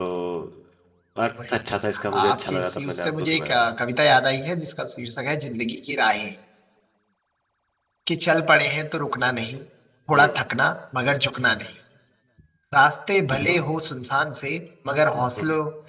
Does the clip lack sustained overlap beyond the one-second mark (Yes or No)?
No